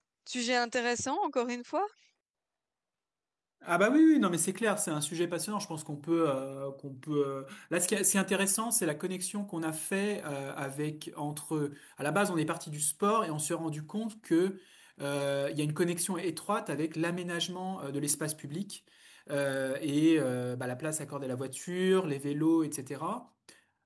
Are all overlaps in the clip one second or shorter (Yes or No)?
Yes